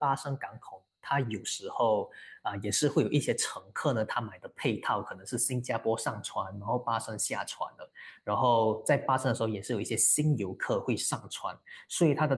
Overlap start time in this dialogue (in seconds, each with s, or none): none